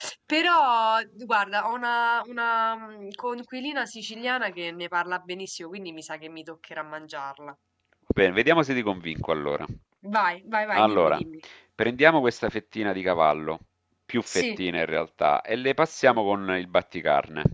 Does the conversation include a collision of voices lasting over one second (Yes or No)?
No